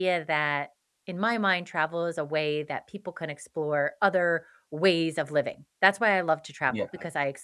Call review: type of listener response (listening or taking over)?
listening